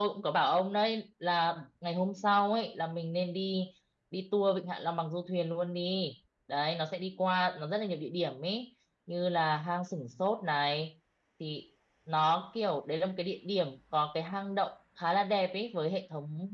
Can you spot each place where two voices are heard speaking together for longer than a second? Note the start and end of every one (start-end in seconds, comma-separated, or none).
none